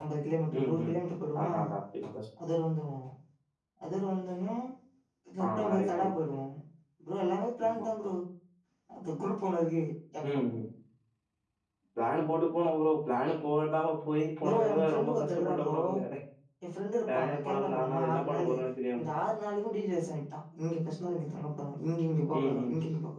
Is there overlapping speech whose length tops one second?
Yes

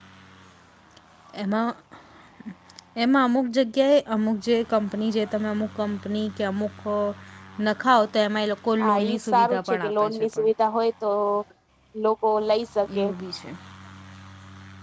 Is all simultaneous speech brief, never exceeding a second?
No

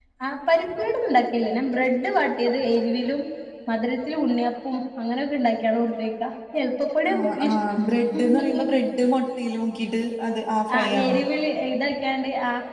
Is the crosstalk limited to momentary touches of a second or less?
Yes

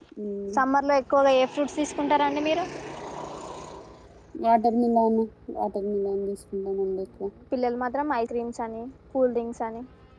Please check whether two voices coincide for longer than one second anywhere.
No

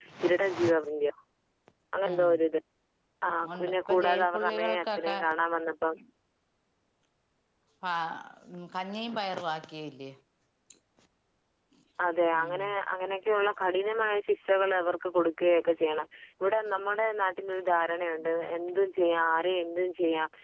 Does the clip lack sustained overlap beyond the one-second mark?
No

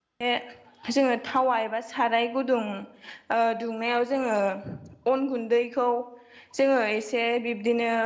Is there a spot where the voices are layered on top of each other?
No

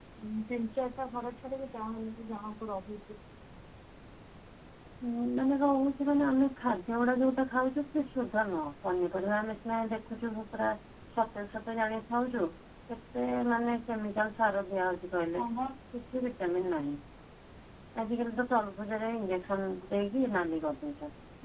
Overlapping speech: No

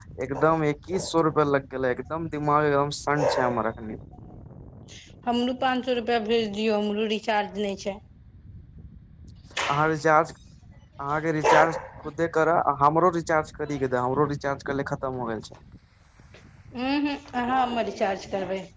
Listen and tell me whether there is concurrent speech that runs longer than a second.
No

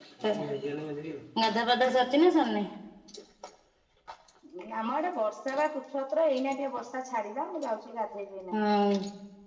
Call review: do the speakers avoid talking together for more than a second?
Yes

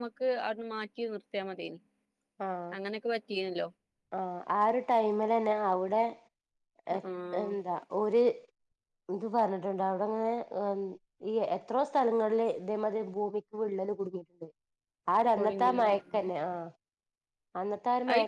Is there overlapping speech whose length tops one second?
No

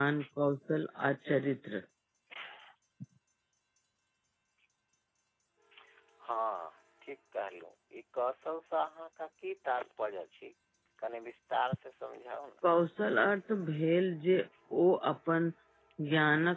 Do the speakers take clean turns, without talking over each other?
Yes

